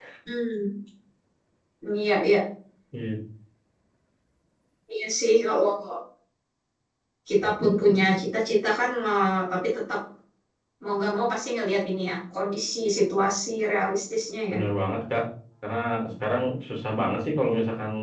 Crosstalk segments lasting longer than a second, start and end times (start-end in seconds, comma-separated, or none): none